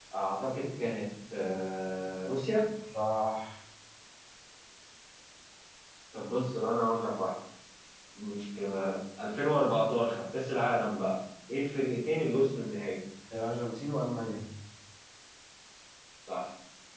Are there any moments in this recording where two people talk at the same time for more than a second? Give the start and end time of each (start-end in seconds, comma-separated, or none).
none